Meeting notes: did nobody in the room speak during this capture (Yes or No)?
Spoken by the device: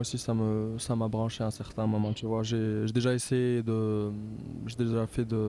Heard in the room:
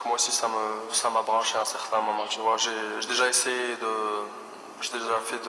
Yes